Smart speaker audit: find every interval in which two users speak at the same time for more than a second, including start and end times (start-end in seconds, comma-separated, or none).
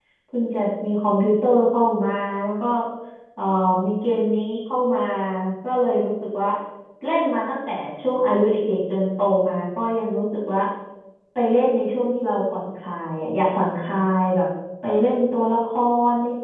none